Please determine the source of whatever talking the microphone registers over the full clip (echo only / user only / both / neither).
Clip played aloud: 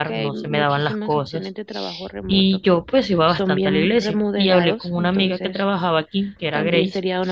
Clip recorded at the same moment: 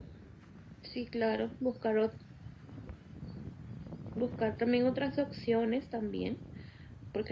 user only